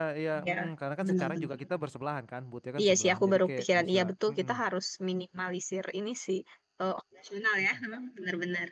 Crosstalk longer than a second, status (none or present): present